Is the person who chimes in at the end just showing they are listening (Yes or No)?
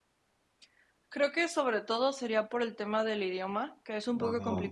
Yes